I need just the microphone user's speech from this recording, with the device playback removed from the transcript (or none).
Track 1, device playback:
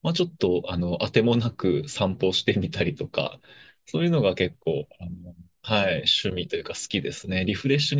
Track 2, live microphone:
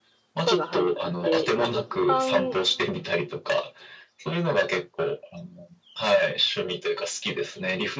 とかが入ってて、まあ一般